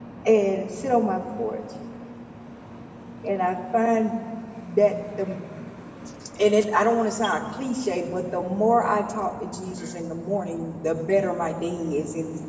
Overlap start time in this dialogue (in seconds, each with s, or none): none